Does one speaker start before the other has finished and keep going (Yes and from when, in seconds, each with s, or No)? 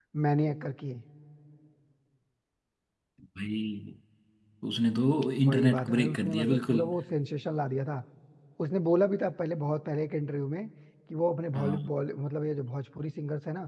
Yes, from 5.5 s